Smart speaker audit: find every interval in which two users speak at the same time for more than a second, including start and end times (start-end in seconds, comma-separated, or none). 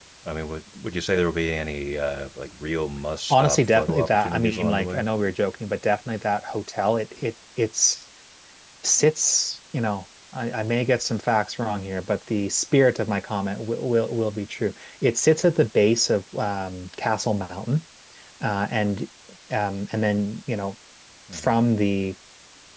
3.3-5.0